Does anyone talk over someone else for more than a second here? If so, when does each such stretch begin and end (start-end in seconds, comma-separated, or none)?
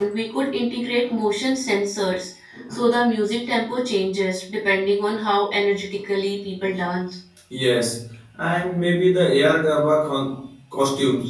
none